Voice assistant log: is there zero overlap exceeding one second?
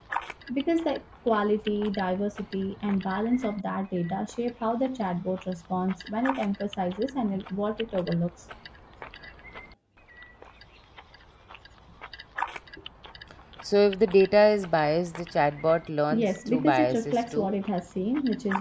No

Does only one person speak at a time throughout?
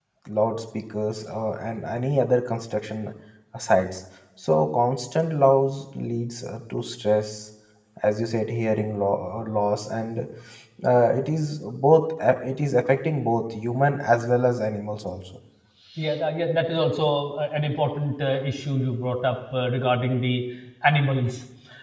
Yes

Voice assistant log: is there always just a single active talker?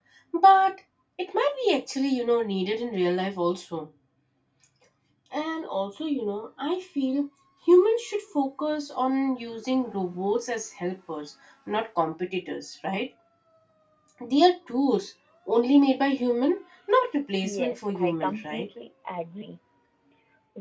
No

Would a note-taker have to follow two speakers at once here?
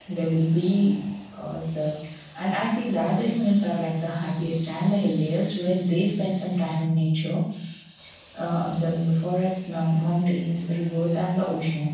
No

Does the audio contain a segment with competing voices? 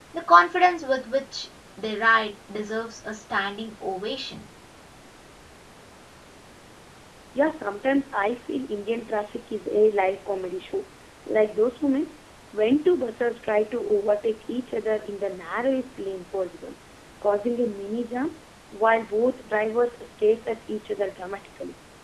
No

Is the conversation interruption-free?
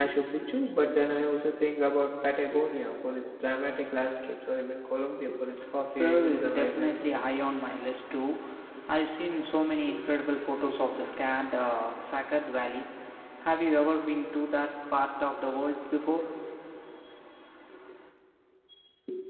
No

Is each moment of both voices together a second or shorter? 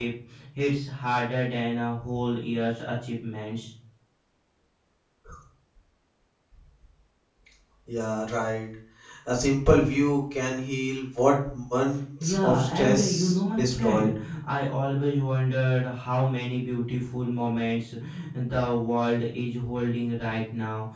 No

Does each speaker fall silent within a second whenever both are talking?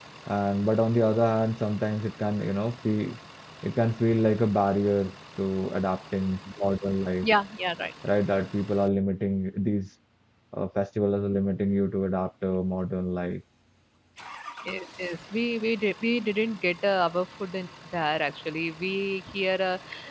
Yes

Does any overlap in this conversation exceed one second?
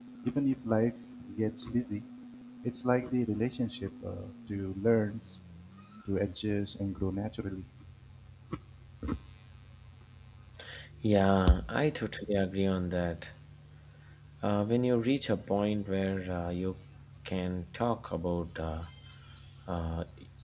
No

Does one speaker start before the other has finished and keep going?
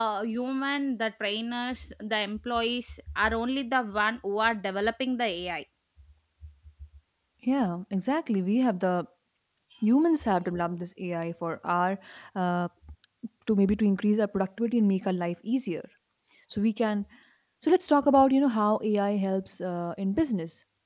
No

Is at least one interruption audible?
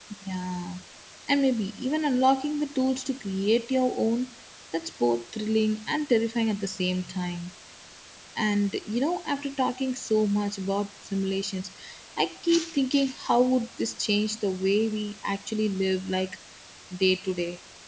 No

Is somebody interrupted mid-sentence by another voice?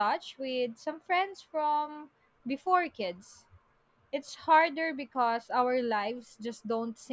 No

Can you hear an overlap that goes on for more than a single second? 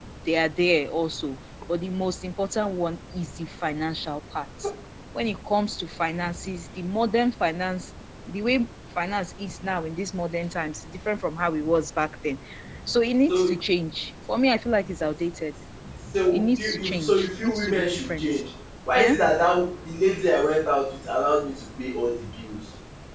Yes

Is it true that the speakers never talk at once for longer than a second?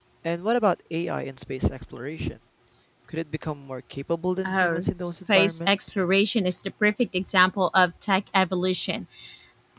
No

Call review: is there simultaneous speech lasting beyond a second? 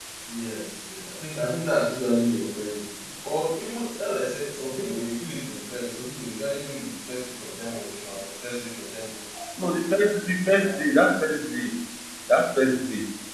No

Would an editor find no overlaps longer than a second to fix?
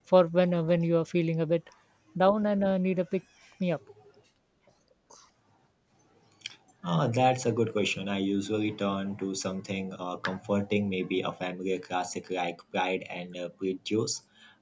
Yes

